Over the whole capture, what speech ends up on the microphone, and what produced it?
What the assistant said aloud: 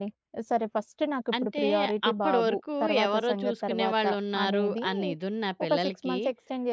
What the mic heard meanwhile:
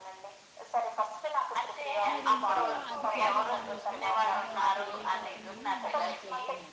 both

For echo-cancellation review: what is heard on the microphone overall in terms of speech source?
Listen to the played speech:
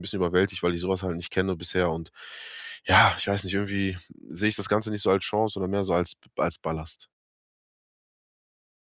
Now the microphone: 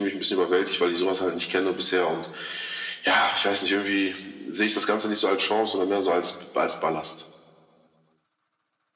echo only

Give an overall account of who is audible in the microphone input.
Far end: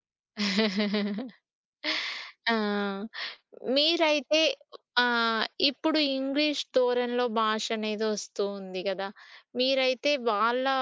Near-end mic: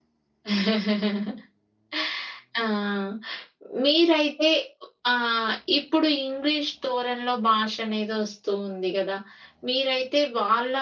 echo only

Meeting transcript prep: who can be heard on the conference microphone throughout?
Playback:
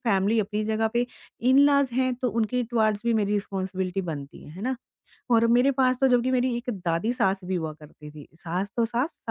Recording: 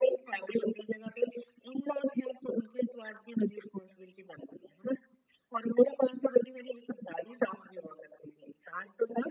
echo only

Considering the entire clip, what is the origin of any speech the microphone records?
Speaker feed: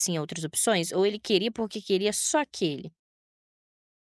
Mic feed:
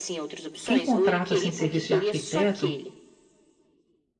both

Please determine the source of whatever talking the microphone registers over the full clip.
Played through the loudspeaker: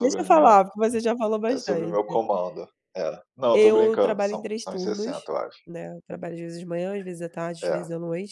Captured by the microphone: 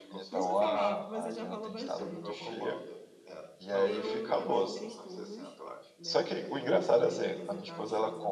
both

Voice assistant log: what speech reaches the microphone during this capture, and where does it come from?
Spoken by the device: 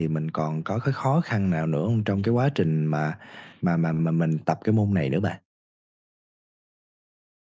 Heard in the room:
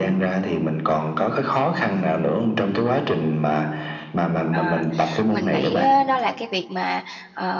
both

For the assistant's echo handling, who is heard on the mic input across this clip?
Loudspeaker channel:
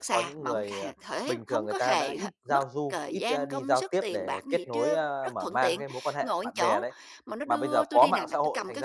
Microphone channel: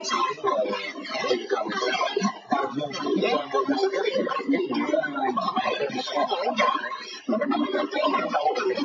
echo only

